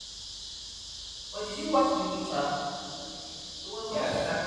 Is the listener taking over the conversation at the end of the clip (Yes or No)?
Yes